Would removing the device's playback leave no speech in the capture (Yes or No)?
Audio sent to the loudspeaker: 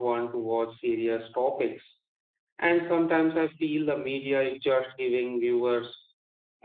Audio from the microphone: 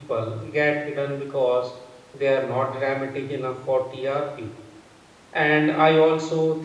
No